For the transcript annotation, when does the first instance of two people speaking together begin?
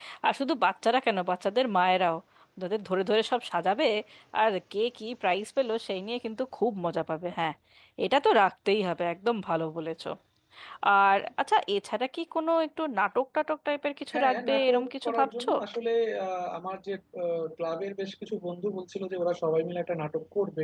14.1 s

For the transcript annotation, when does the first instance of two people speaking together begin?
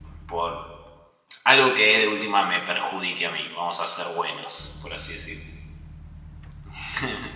none

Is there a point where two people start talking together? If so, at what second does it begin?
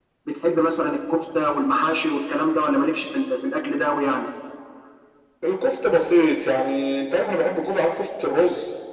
none

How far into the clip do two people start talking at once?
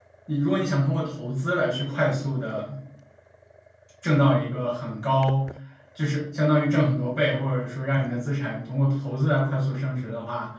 none

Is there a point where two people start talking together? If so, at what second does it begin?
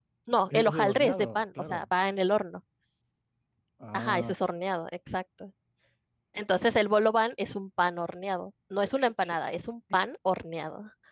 0.5 s

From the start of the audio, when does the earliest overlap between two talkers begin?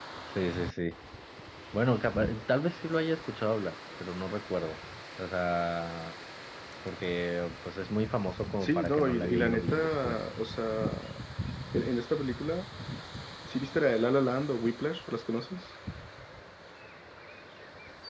8.6 s

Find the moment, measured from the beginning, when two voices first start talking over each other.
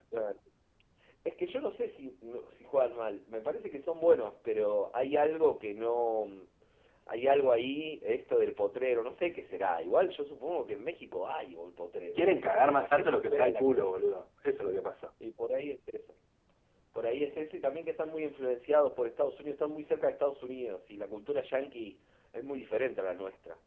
12.1 s

